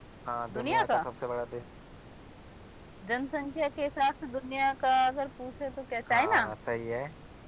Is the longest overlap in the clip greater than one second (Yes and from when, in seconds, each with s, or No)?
No